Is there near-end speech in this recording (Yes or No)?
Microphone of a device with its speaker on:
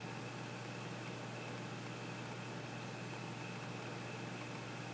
No